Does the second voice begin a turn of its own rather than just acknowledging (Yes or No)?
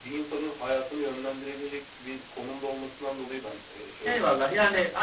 Yes